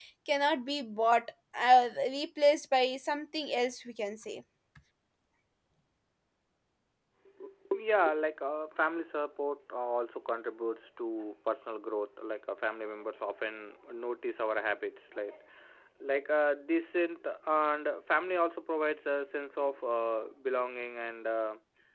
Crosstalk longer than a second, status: none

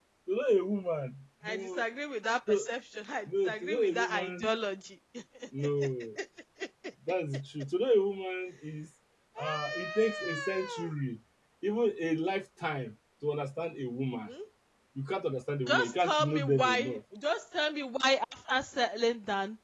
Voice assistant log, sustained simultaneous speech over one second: present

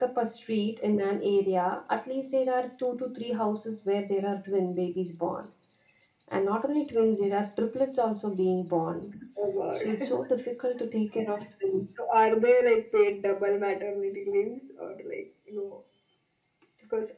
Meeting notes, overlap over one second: none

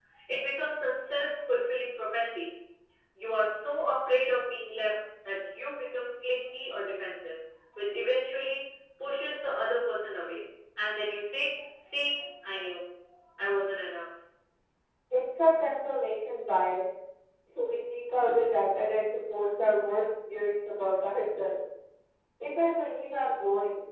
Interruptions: none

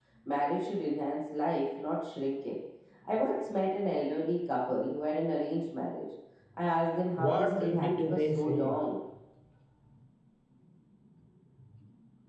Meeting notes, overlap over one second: present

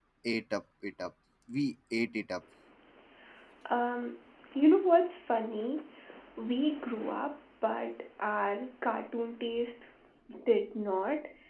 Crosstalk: none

